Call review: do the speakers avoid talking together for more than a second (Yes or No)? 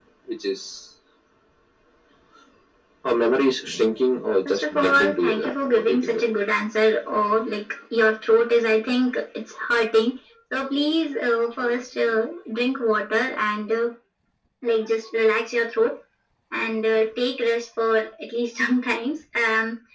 No